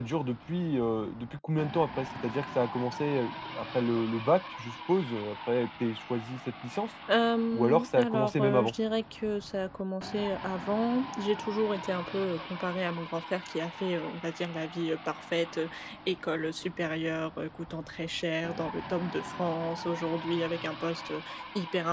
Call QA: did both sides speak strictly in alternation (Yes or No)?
No